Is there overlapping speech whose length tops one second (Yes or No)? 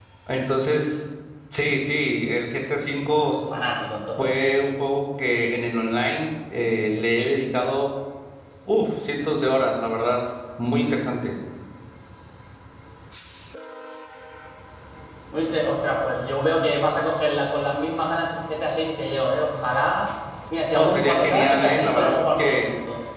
Yes